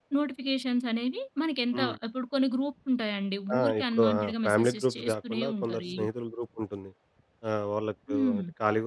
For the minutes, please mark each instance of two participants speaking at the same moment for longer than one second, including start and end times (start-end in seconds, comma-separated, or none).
3.6-5.8